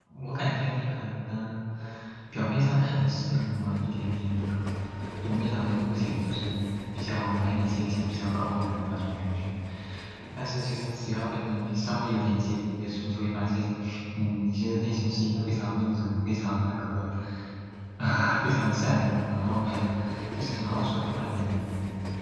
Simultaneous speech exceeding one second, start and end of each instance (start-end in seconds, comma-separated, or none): none